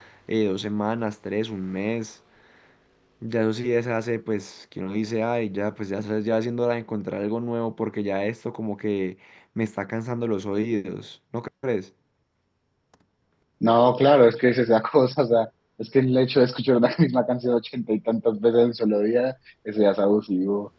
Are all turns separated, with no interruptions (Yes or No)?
Yes